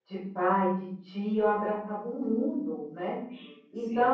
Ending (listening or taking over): listening